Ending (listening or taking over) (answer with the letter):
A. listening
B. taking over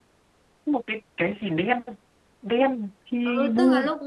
B